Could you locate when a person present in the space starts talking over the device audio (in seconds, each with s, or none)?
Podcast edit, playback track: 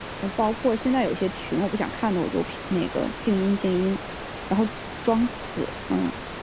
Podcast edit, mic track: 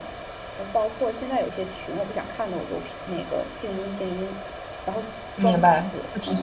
5.4 s